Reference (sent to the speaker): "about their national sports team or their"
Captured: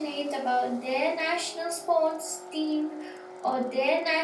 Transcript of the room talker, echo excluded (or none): none